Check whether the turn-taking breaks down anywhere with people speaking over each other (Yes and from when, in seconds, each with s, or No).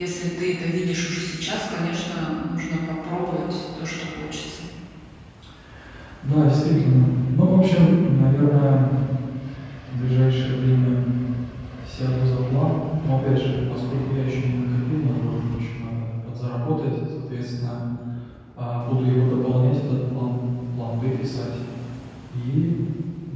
No